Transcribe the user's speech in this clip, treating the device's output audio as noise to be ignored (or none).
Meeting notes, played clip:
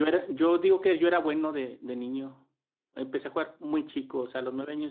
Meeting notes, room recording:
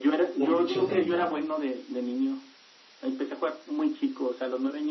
uno setenta